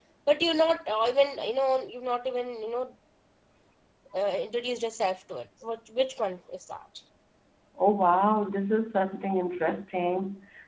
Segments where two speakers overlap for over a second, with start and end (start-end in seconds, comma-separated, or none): none